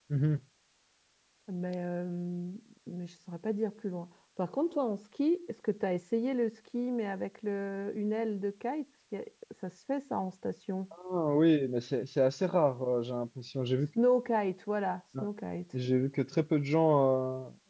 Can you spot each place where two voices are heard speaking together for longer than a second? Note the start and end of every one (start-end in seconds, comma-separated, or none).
none